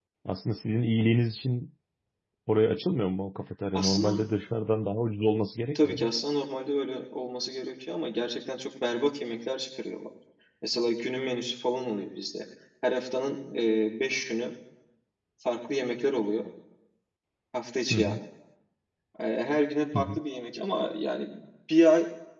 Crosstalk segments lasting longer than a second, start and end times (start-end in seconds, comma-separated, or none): none